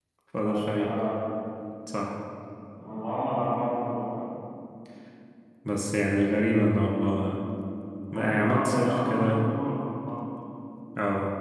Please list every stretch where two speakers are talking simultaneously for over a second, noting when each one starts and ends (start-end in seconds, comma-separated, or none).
8.1-9.4